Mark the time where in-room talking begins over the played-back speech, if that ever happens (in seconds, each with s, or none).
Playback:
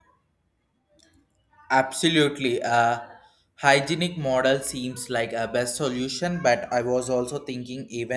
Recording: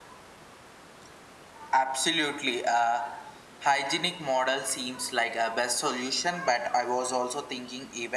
none